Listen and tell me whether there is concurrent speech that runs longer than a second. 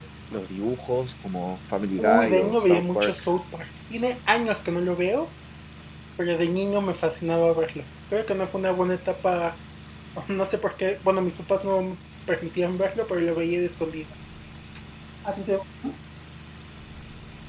Yes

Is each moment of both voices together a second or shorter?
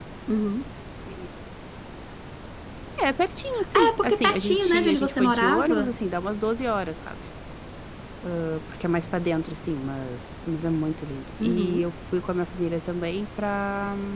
No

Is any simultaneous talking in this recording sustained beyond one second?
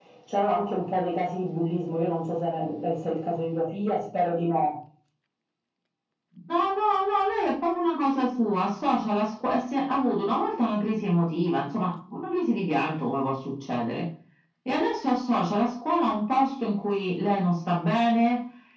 No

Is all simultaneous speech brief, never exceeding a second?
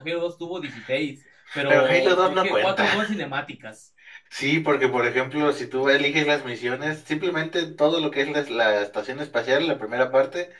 No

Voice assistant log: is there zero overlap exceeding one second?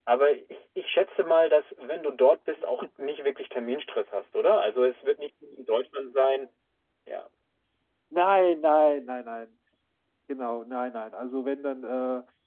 Yes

